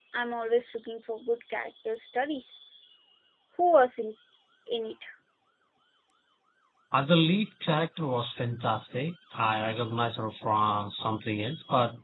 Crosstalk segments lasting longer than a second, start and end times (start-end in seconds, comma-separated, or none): none